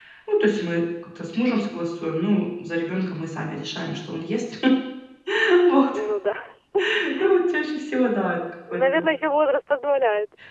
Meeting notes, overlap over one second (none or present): none